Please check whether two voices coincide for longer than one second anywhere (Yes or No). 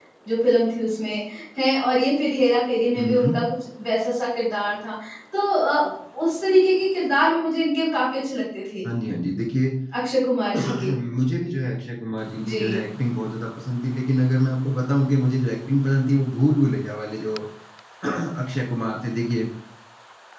No